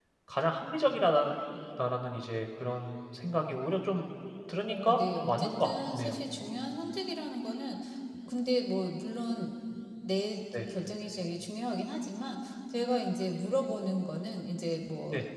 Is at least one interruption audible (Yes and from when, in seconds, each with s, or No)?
Yes, from 4.7 s